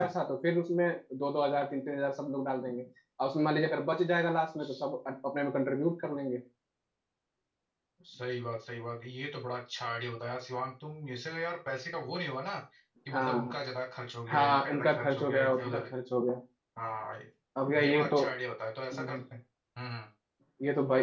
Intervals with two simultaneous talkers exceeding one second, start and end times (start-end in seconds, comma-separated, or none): 14.3-15.8